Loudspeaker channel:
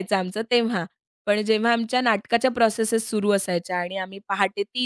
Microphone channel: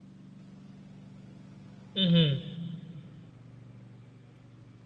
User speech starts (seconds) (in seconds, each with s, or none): 2.0 s